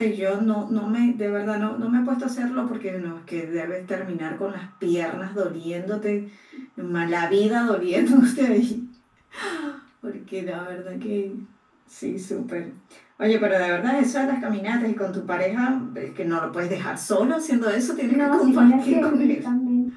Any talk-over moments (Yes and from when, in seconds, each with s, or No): Yes, from 18.1 s